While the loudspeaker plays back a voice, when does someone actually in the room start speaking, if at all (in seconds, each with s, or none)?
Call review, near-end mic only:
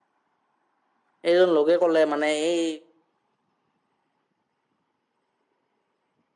1.3 s